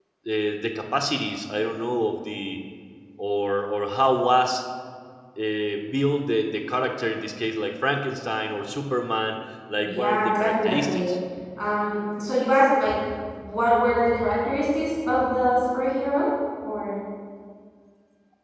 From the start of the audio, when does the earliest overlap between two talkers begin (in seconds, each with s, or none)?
9.8 s